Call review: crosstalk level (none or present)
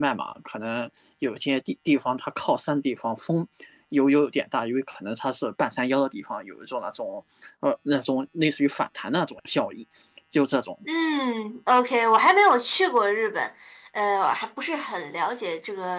none